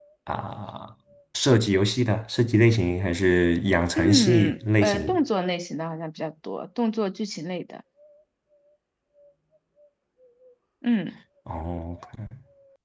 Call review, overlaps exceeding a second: present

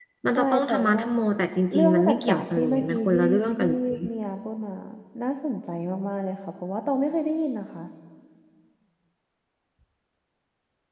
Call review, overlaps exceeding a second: present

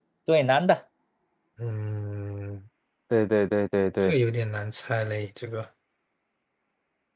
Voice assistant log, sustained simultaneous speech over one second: none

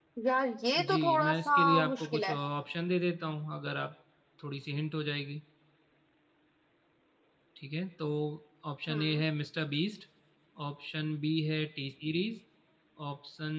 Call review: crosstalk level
present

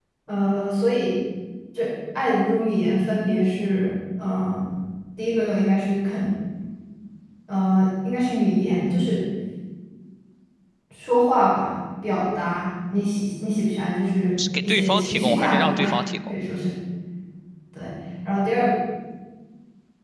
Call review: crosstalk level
present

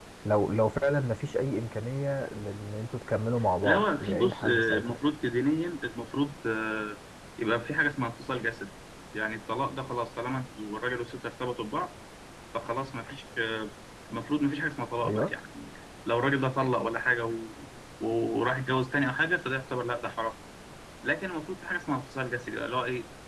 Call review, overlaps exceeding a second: present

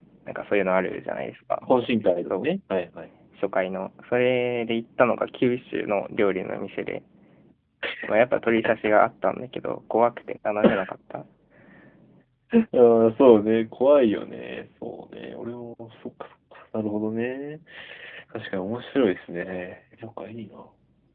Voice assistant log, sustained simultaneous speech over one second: none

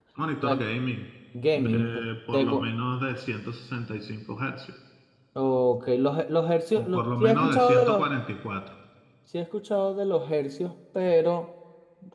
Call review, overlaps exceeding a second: present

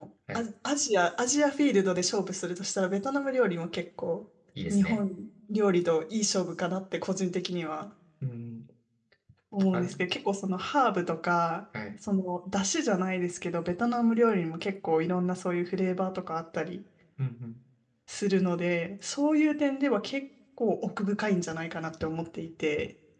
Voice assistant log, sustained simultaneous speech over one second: none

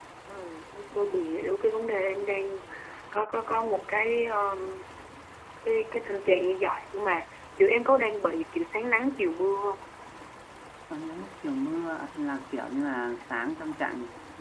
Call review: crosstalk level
none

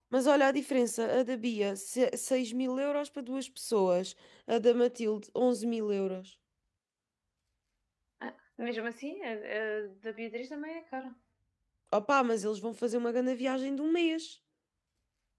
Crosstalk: none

